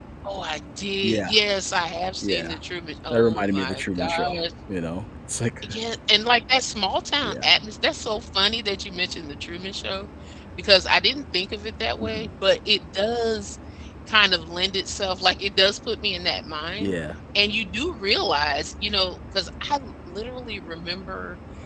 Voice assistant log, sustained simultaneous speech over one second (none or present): present